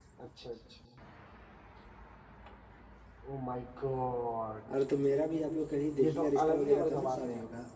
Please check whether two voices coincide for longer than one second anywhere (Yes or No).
Yes